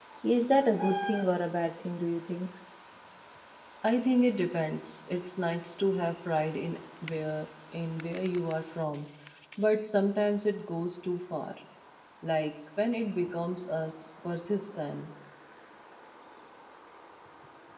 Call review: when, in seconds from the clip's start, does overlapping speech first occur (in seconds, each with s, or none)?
none